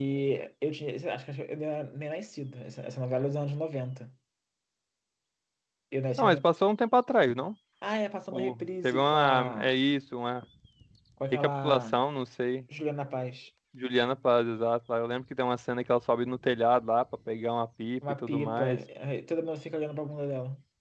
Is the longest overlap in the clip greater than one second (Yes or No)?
Yes